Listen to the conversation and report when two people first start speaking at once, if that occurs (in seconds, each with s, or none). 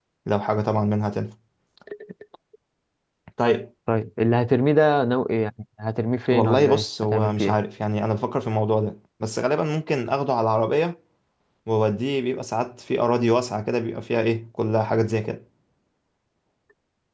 6.3 s